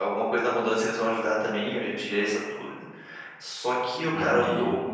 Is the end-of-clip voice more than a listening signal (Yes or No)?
No